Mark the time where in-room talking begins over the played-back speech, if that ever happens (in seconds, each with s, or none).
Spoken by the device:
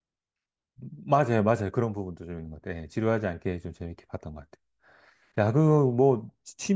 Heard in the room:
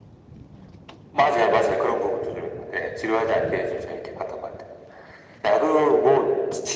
none